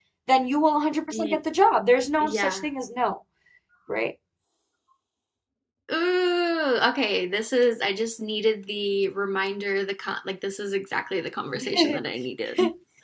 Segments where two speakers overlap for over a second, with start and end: none

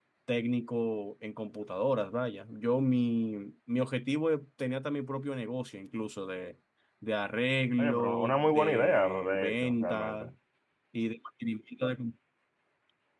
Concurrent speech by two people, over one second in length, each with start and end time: 7.8-10.3

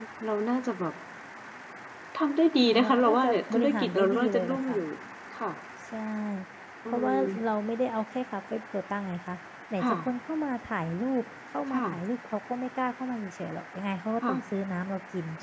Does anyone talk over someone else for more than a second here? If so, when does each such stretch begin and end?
2.7-4.8

